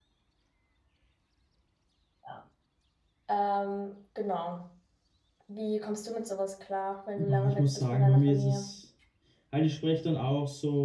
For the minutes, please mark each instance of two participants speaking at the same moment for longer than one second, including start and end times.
7.2-8.8

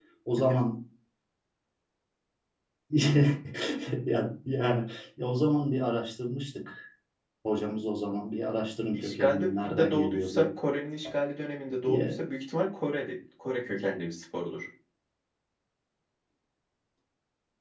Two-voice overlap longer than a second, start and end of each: 8.9-10.5

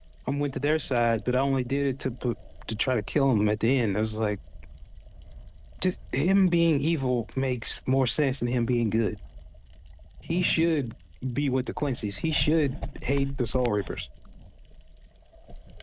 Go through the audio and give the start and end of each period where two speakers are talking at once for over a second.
none

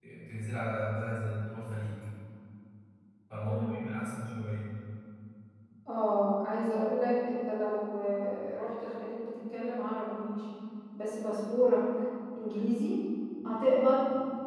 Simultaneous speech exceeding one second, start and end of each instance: none

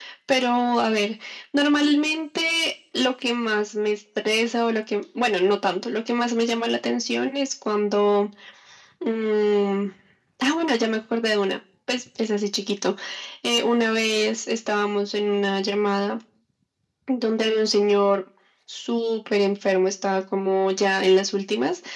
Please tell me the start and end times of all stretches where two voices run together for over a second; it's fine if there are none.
none

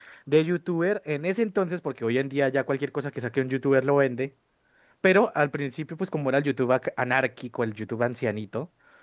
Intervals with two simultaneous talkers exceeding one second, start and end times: none

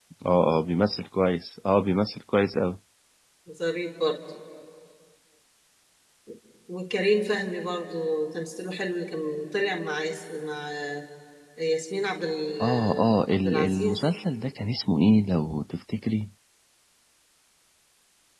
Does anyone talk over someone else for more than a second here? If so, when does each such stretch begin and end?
12.6-14.1

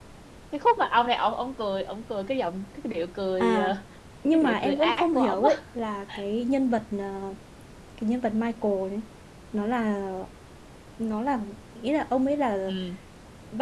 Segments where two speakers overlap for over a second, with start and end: 4.3-5.5

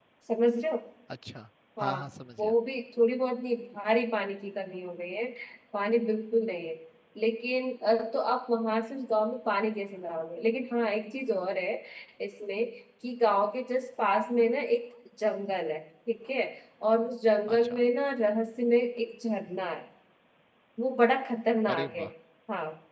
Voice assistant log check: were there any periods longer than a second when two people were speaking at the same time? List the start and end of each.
none

